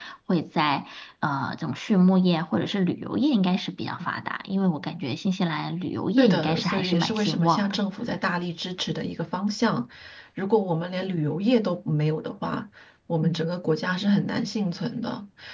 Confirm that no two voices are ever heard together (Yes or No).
No